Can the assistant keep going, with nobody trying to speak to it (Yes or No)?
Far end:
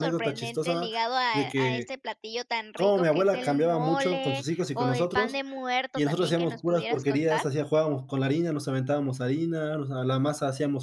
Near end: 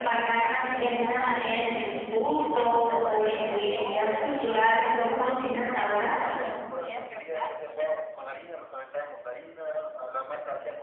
No